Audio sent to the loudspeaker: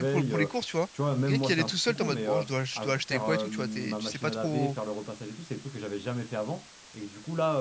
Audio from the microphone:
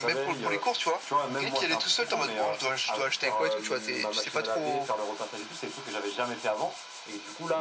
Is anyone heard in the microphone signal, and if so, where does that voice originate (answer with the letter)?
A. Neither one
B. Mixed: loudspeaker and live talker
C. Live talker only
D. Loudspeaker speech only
D